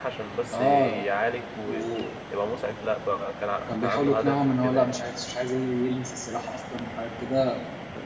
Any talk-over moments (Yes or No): Yes